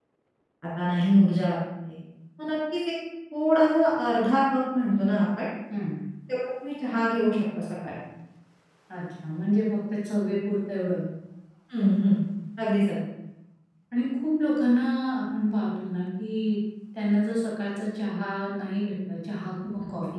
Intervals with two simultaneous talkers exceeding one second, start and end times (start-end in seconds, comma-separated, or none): none